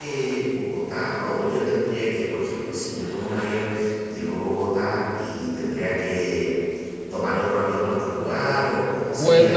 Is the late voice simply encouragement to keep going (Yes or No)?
No